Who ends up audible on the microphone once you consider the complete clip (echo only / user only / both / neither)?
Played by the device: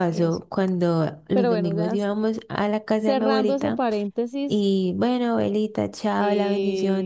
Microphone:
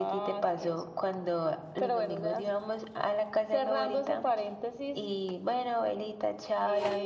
echo only